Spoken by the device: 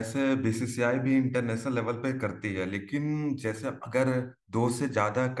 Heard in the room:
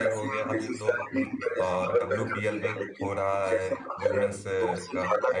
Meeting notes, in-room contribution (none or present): present